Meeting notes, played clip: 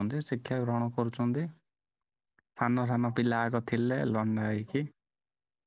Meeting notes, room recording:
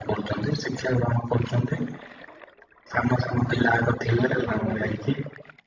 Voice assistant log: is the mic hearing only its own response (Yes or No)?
No